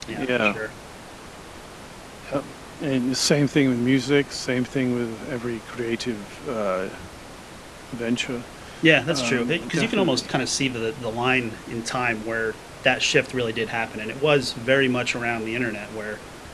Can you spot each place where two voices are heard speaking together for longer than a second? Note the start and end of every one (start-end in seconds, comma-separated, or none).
9.1-10.3